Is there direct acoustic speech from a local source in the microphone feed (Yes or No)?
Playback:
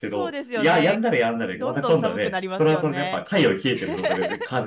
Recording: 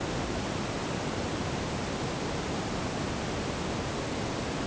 No